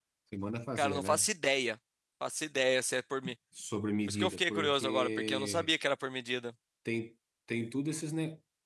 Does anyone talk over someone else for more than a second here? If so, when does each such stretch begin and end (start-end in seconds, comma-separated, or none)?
4.1-5.7